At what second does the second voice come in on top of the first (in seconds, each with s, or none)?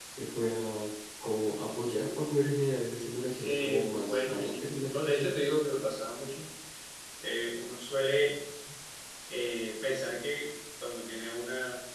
3.4 s